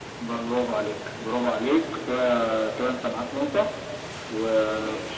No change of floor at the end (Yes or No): Yes